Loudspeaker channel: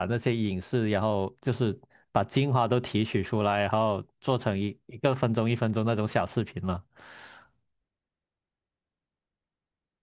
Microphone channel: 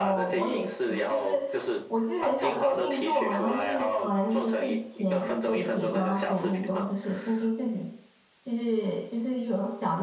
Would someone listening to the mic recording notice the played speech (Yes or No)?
Yes